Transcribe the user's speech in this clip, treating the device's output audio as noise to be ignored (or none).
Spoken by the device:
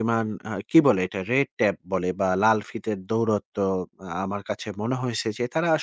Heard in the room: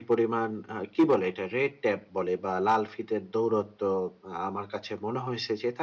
none